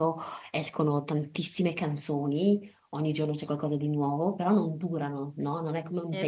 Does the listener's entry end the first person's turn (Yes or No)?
No